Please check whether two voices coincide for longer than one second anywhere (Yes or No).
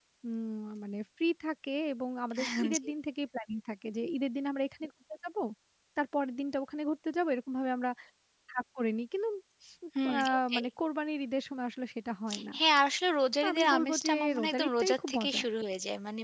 Yes